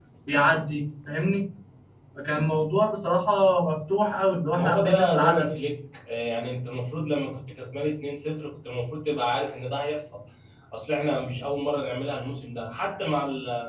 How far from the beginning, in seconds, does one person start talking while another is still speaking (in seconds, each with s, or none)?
4.5 s